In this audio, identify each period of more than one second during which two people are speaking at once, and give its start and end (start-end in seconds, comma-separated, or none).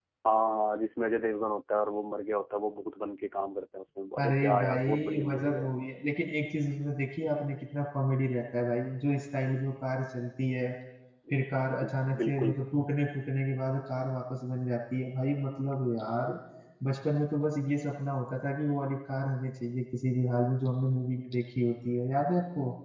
4.2-5.7